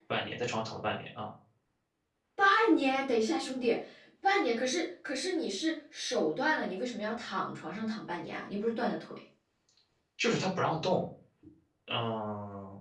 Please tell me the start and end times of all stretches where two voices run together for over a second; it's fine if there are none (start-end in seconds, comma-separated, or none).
none